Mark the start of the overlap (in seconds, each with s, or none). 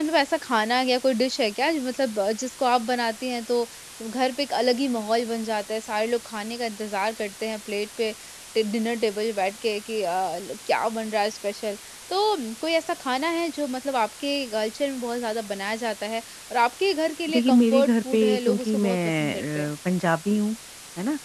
17.3 s